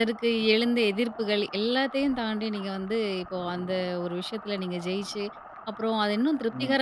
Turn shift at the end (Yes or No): No